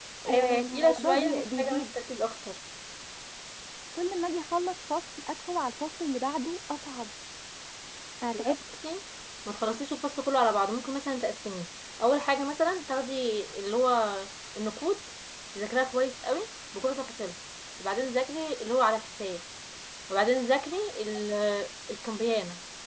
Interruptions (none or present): present